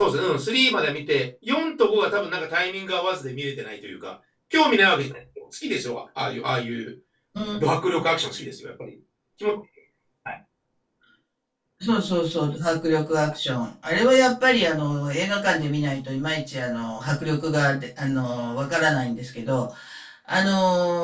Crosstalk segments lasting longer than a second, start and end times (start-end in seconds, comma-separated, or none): none